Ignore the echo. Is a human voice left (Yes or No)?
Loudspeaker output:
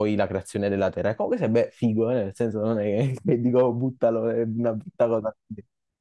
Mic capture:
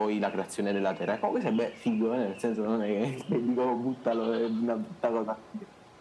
No